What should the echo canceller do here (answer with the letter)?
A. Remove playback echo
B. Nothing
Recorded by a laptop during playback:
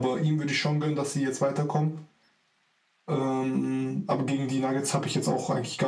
A